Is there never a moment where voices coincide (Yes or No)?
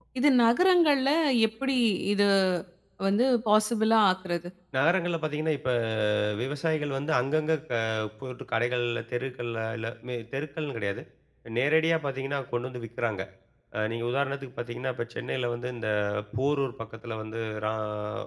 Yes